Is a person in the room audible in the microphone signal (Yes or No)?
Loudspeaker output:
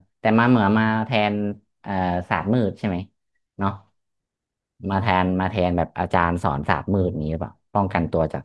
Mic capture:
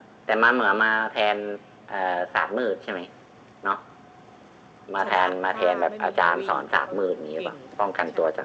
Yes